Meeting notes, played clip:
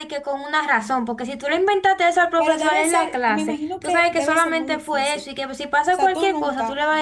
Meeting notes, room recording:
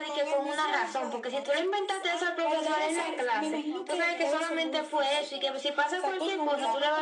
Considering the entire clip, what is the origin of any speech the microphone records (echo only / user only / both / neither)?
both